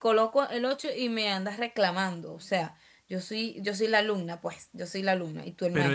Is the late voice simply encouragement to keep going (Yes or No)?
No